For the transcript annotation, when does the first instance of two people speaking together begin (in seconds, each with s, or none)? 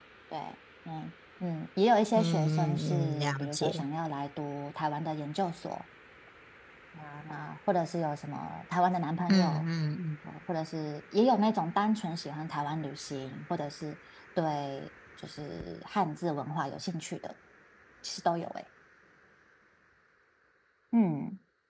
2.2 s